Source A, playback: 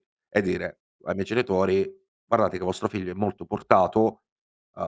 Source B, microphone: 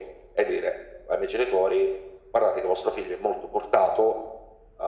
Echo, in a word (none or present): present